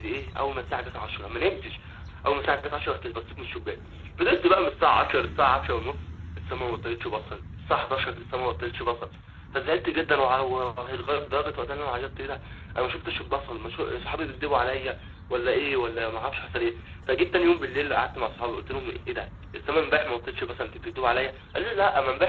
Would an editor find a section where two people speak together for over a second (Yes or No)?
No